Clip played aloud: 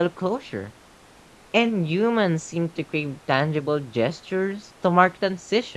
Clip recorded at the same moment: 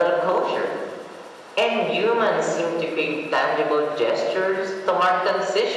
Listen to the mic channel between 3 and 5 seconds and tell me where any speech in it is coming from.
echo only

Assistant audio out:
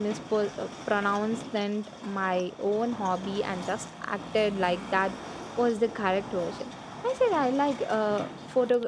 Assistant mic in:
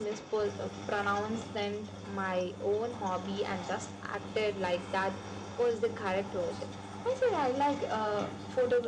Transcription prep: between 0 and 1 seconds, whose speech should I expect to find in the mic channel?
echo only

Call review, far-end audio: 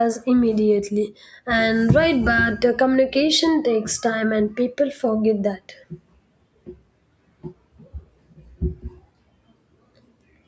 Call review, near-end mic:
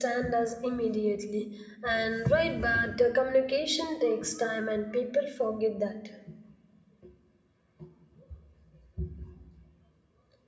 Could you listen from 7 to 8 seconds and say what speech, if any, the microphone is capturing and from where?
neither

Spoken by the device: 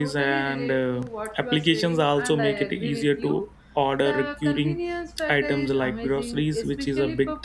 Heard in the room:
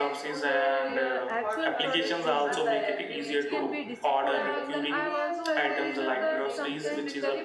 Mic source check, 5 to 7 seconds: both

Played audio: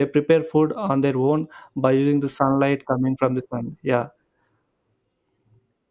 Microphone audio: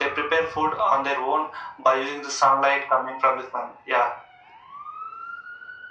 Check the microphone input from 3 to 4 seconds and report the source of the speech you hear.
echo only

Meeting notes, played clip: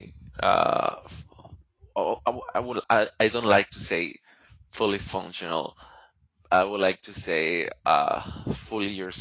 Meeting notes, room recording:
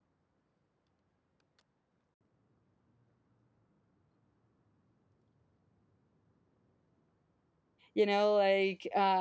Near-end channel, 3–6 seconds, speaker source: neither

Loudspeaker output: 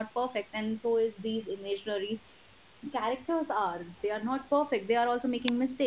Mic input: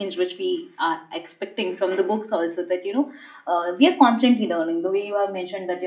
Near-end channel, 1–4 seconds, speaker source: user only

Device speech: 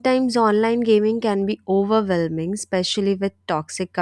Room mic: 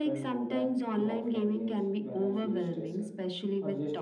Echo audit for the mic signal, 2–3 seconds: both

